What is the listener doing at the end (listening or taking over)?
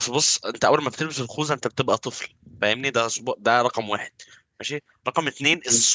listening